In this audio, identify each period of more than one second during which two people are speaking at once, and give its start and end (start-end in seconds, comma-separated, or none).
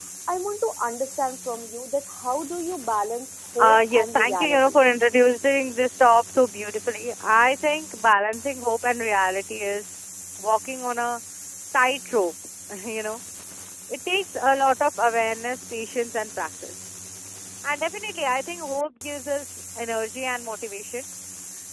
3.6-4.8